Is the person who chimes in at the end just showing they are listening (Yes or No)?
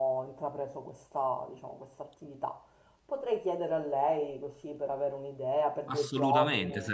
No